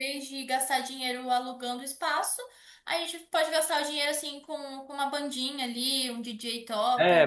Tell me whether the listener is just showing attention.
No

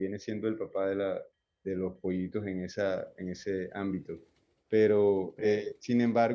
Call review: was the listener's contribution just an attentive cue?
Yes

